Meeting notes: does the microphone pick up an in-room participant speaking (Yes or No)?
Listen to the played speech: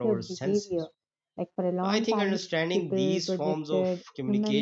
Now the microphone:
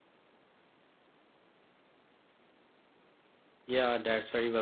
Yes